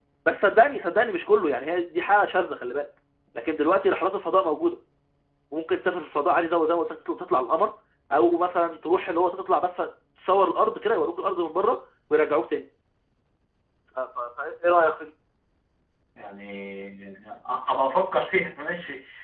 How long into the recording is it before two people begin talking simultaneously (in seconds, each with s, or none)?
none